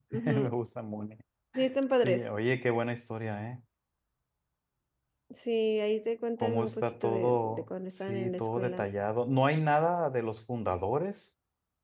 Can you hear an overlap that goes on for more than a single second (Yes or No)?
Yes